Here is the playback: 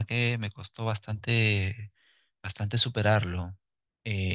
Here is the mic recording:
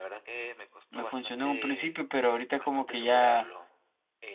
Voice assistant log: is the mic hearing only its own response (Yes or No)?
No